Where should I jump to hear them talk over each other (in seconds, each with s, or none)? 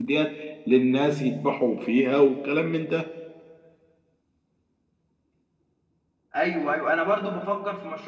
none